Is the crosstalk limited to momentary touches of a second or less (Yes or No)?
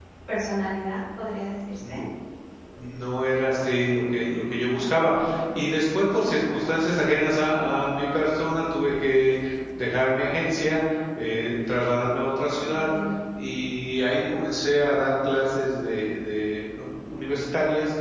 Yes